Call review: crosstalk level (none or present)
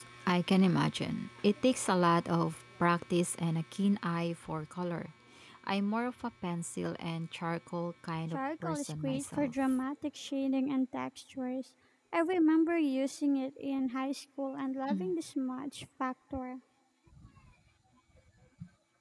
present